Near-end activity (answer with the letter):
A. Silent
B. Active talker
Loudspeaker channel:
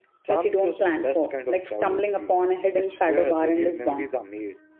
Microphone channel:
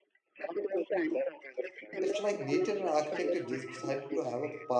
B